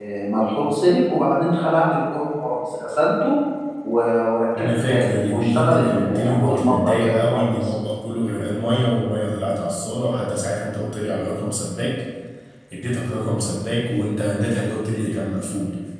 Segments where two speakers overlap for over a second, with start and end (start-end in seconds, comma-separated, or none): 4.6-7.7